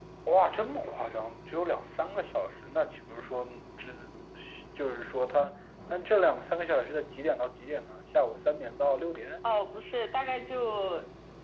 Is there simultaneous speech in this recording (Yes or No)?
No